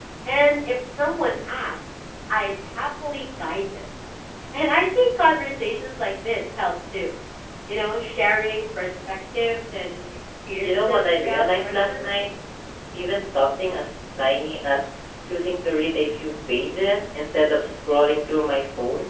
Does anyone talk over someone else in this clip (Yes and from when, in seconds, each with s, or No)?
Yes, from 10.6 s